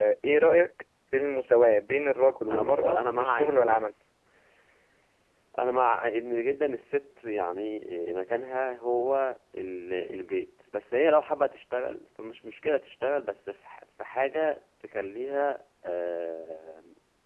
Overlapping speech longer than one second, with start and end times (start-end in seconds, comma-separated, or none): 2.5-3.9